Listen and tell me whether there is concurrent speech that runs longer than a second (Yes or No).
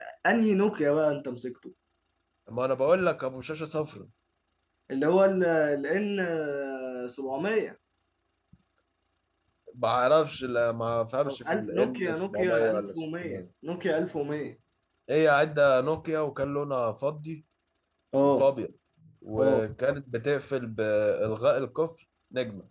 Yes